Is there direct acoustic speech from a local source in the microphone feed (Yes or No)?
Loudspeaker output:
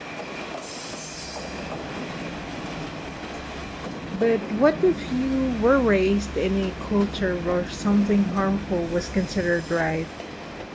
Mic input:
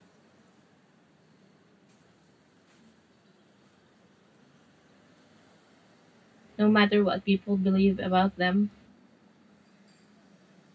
Yes